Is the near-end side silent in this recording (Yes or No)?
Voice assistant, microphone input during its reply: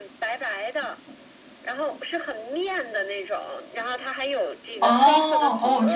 No